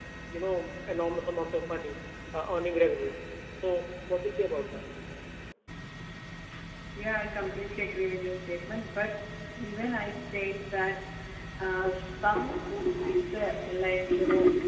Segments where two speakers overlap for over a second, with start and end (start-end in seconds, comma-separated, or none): none